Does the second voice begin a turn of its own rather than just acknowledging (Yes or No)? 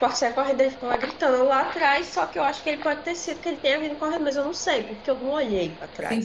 Yes